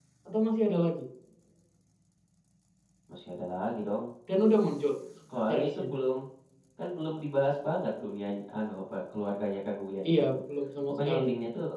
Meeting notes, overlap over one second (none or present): none